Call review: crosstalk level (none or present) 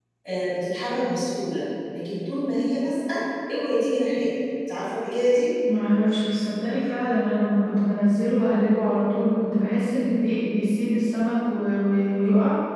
none